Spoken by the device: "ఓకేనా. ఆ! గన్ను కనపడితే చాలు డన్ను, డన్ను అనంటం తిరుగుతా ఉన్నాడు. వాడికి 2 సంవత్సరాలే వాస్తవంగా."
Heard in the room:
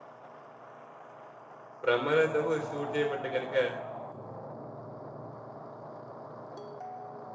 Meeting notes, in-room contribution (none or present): present